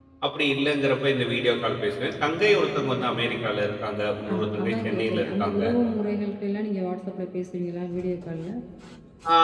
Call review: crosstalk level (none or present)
present